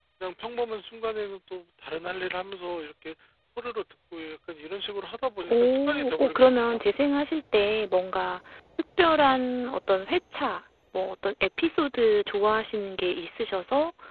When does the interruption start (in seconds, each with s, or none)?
5.4 s